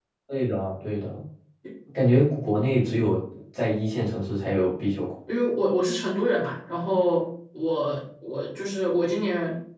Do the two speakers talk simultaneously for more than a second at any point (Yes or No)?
No